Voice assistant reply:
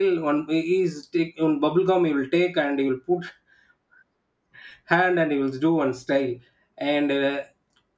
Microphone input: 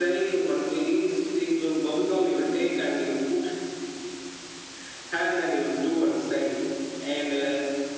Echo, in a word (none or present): present